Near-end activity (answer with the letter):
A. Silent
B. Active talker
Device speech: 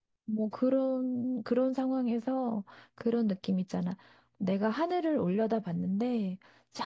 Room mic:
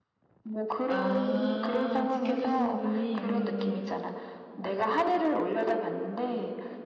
B